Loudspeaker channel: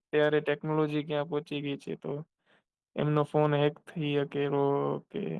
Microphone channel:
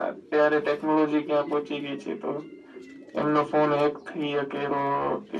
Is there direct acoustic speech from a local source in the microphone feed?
No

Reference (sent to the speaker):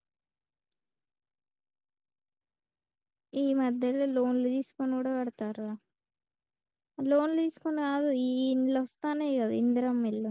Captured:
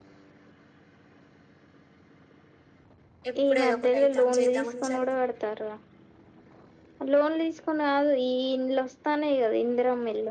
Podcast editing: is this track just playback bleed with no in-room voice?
No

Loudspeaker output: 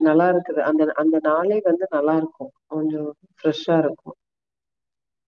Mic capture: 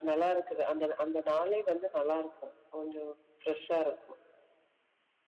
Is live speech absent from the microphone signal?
Yes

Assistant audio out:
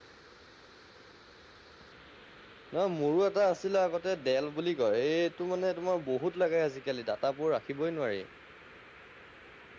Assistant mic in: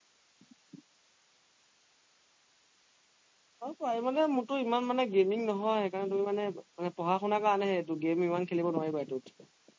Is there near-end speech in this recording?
Yes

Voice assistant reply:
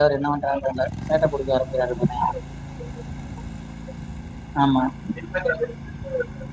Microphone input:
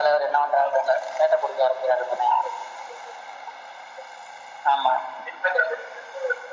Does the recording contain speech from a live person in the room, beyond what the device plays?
No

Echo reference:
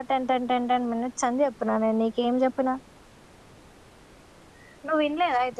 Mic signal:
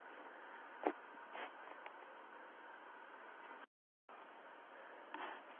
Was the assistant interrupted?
No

